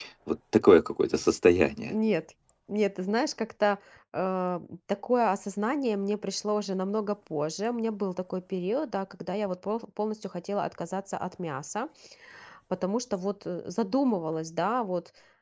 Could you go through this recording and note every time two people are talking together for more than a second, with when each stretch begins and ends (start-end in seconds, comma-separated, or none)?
none